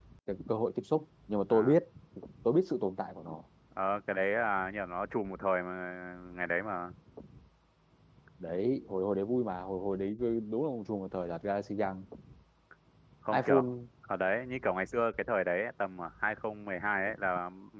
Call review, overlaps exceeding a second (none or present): none